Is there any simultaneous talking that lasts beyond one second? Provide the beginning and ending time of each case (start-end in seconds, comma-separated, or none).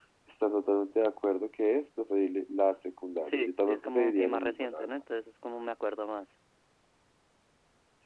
3.2-4.9